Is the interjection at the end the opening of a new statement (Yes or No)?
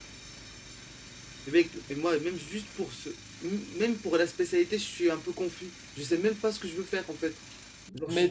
Yes